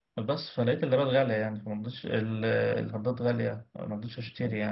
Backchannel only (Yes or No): Yes